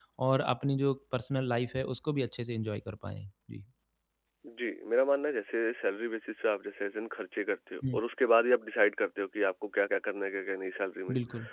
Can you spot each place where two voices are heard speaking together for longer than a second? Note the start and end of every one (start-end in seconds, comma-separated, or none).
none